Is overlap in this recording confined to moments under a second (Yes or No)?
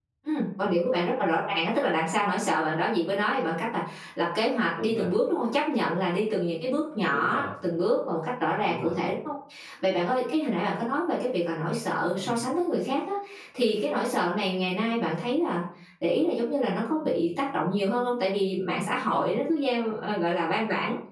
Yes